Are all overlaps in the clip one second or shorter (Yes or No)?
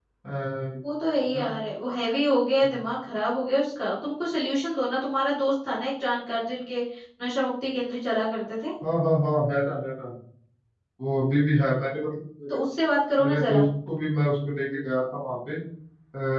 Yes